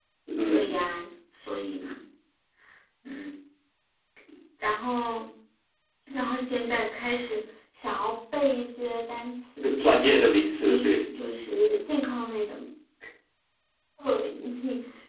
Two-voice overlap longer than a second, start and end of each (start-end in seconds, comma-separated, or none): none